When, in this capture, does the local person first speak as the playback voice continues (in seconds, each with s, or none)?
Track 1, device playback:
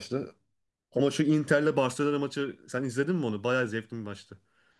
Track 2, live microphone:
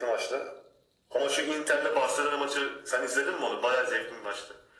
none